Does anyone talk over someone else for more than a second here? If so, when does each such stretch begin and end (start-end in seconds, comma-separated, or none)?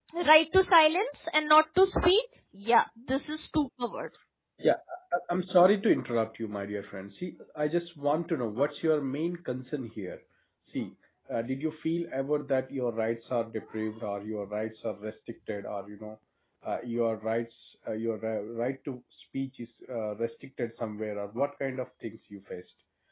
none